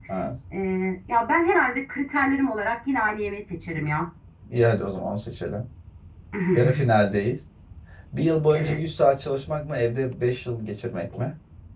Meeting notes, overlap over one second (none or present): none